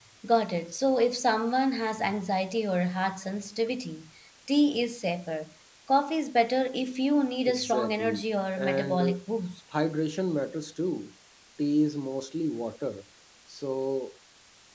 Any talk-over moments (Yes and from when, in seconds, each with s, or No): Yes, from 7.5 s